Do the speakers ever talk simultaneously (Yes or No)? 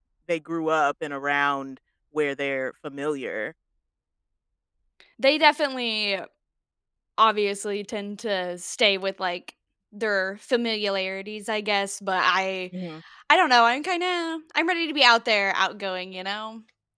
No